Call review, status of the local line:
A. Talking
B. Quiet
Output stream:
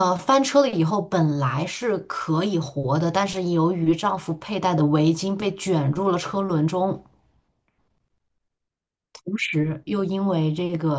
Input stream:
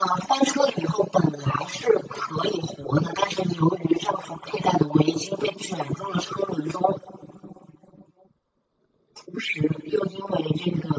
B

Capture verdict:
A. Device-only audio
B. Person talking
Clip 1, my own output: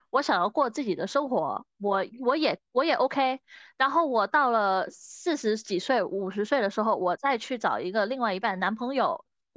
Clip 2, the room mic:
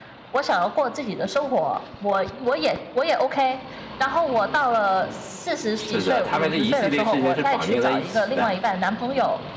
B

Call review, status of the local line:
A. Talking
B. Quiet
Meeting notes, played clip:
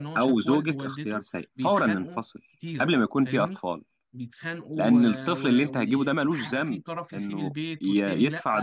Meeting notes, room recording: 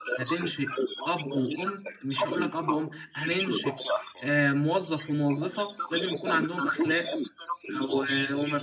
A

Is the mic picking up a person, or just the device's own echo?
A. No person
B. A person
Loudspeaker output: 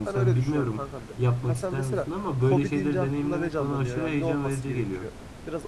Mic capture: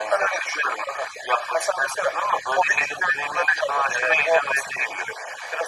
A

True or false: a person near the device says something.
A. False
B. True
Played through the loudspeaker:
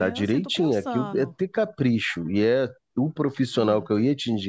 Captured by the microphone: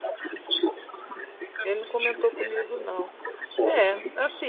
B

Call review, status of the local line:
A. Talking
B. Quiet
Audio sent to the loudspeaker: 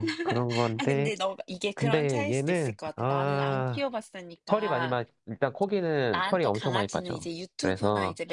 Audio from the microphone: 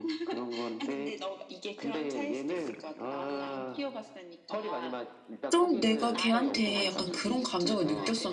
A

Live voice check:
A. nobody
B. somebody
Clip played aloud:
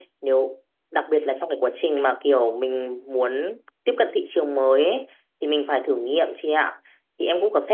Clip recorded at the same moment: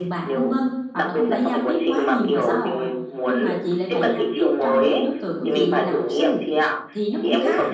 B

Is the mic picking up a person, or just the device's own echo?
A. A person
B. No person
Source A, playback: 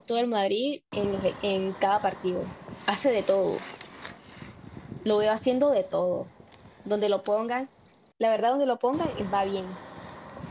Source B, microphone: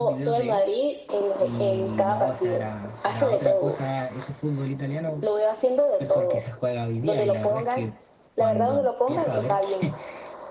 A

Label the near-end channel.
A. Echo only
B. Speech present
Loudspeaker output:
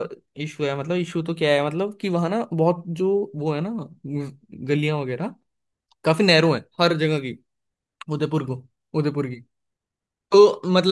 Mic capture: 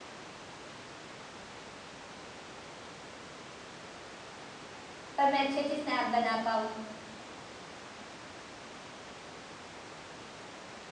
B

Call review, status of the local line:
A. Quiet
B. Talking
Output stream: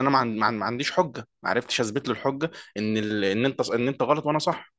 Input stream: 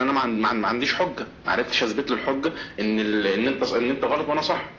A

